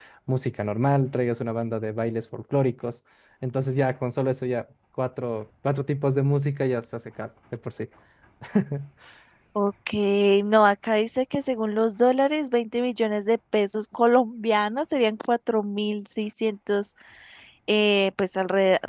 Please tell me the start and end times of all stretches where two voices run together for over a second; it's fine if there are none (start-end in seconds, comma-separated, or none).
none